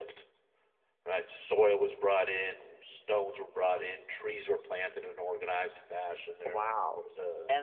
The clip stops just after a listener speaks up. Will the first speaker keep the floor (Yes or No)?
No